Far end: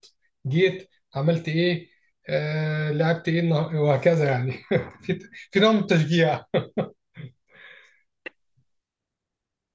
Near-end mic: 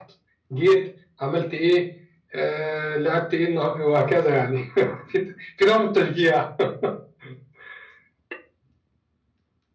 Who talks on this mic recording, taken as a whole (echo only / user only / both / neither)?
echo only